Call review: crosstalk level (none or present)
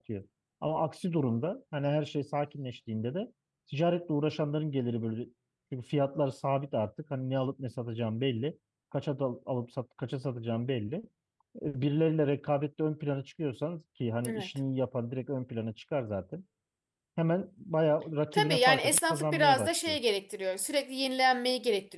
present